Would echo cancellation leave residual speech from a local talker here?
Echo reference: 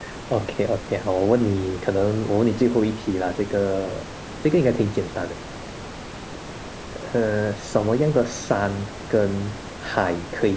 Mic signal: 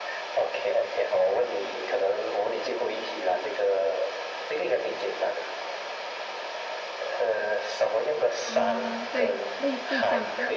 Yes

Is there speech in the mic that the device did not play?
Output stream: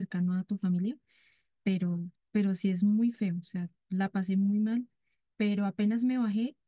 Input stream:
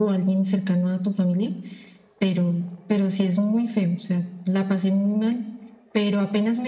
No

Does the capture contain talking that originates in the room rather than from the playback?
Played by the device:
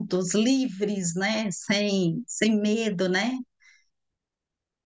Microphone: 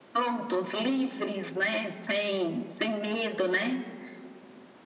No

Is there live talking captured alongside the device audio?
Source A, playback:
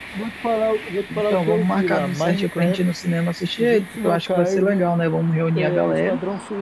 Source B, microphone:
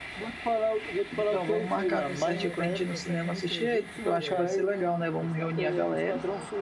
Yes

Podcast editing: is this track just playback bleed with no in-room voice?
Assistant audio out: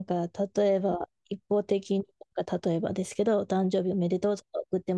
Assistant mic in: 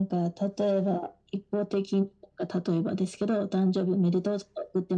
Yes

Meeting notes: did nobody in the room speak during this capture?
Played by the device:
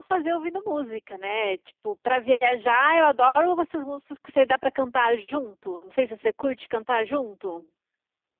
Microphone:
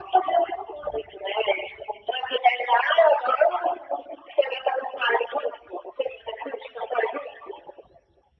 Yes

